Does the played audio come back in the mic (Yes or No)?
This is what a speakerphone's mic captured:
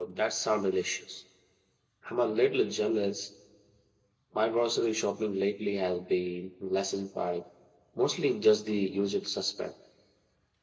No